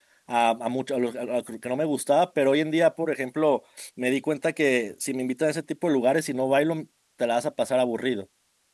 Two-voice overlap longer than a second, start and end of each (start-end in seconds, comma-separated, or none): none